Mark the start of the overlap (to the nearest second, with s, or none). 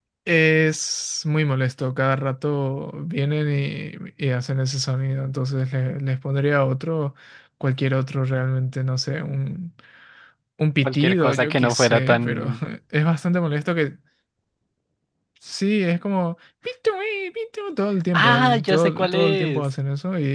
11 s